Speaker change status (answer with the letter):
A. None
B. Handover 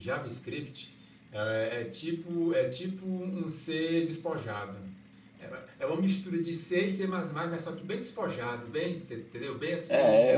B